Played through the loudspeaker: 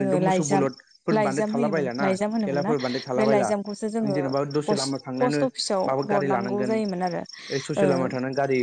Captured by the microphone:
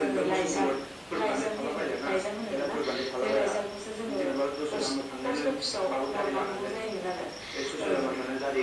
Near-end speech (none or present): none